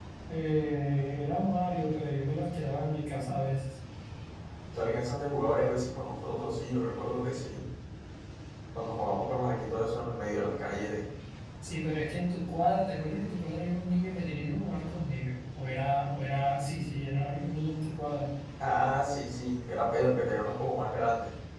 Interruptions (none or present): none